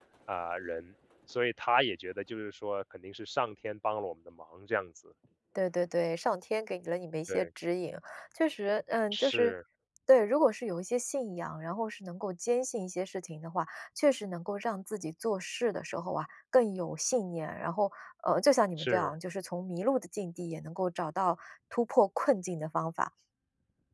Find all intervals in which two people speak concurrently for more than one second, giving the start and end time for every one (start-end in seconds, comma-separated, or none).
none